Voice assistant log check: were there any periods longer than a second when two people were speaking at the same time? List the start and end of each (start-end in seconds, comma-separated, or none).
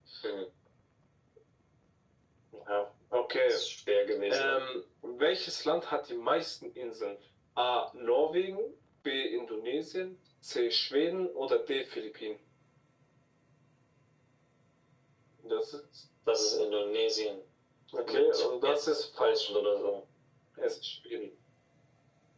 18.1-19.5